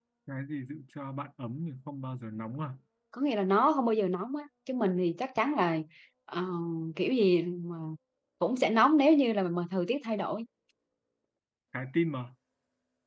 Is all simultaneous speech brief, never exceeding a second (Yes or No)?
Yes